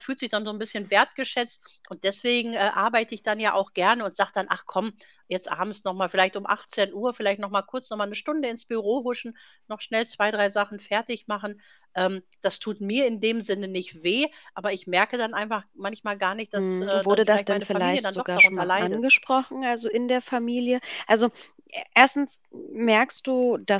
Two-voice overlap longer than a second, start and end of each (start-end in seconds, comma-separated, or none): 16.6-19.0